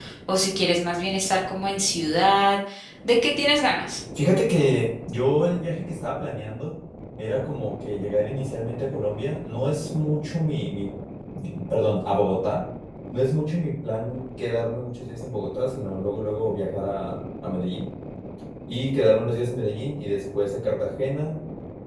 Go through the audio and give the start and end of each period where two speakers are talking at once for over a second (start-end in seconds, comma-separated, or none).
none